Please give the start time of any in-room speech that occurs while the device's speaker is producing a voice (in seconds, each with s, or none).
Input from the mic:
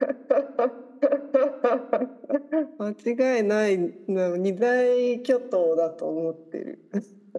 none